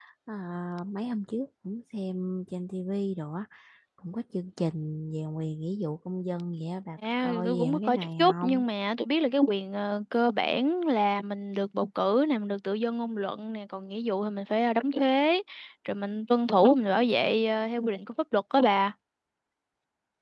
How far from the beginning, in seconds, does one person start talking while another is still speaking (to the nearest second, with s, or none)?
7 s